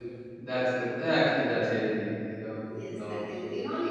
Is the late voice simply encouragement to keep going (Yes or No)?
No